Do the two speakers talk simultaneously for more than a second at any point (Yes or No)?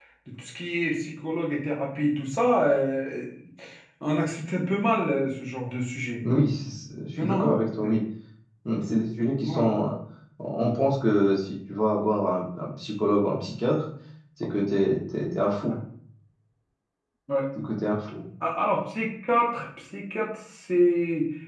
No